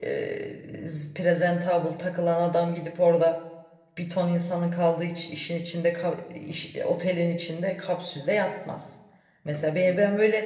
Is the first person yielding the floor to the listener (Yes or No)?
No